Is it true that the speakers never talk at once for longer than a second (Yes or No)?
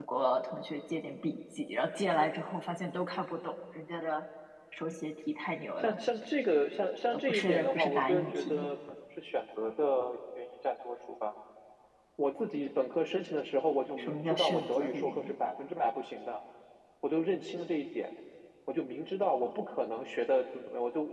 No